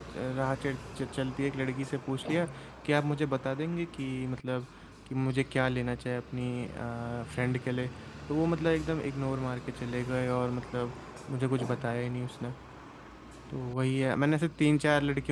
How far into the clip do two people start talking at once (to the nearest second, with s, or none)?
none